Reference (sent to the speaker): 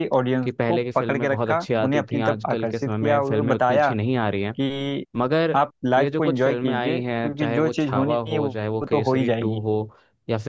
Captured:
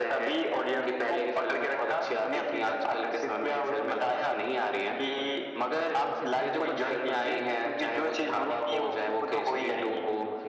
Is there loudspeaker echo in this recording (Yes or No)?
Yes